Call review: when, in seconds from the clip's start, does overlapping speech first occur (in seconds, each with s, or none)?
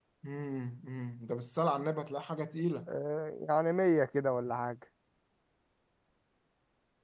none